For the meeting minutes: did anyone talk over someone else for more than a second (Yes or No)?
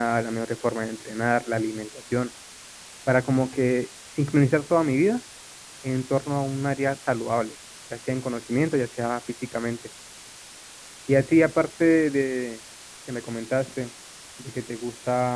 No